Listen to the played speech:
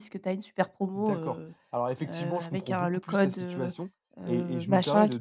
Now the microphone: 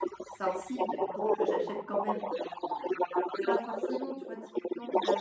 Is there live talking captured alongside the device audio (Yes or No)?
Yes